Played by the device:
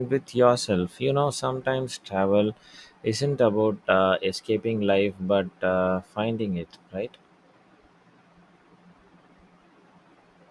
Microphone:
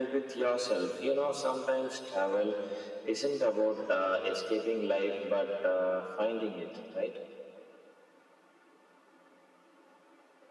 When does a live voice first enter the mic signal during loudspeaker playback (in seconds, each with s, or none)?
none